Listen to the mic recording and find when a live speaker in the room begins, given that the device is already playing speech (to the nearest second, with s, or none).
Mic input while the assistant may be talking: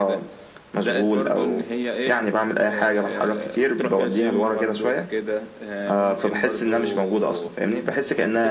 none